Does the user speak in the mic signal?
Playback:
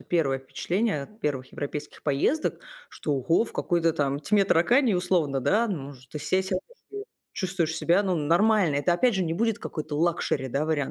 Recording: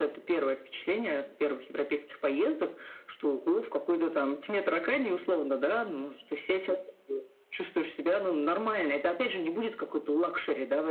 No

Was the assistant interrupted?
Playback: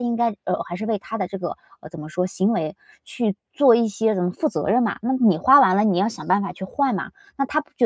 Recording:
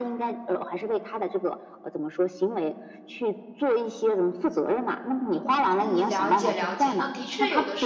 Yes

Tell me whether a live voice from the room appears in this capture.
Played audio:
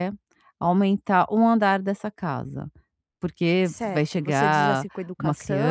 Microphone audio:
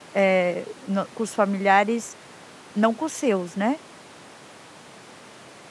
Yes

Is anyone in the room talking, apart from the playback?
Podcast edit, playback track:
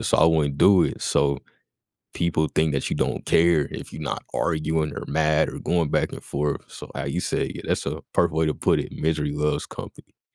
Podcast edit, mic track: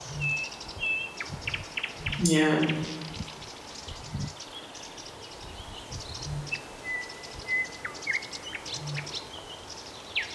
Yes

